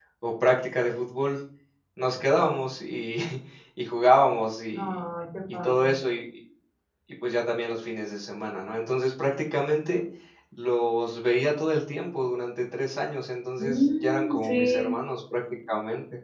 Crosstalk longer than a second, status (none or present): present